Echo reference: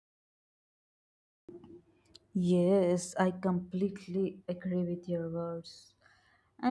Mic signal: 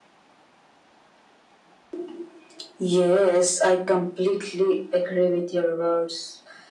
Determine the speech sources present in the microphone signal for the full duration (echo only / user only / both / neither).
echo only